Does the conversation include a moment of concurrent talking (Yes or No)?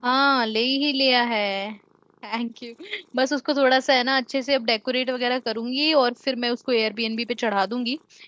No